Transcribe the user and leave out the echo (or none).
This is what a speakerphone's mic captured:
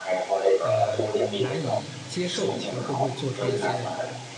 呃，难以接受？就是会不会做出一些